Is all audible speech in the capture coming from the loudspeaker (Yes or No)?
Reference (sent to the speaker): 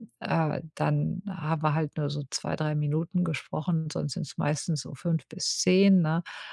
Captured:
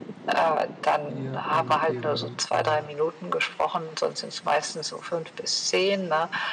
No